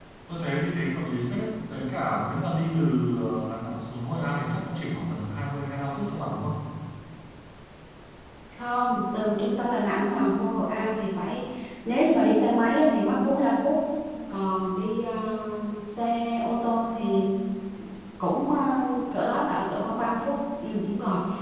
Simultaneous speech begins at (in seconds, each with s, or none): none